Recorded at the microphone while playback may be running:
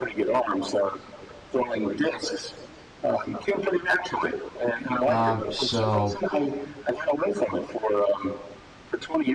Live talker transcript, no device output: Um, so

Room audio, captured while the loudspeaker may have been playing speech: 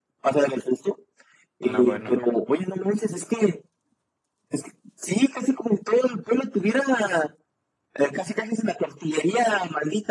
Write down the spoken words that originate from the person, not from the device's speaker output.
No, bueno.

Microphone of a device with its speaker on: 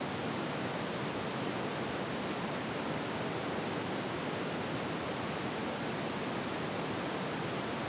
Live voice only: none

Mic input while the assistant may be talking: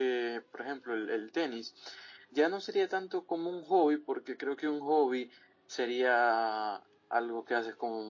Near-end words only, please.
none

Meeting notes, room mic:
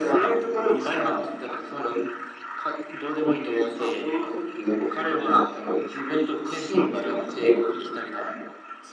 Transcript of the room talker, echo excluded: none

